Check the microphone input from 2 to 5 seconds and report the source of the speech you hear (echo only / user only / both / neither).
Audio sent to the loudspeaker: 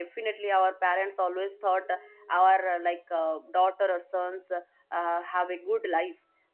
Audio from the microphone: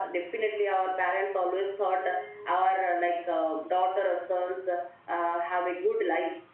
echo only